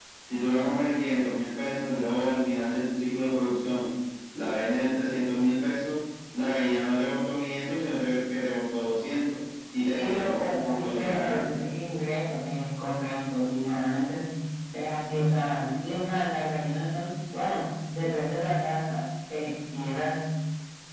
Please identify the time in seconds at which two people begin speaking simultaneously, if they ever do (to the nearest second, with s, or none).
10 s